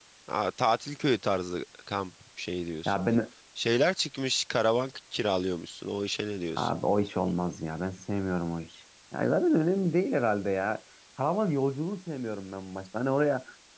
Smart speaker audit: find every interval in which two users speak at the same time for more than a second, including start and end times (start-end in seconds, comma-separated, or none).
none